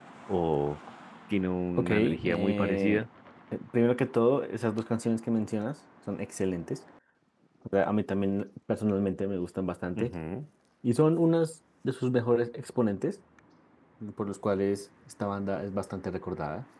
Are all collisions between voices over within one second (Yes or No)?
No